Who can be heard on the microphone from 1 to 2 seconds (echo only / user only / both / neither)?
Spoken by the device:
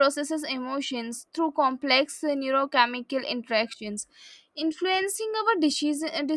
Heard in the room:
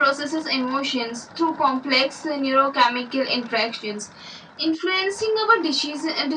echo only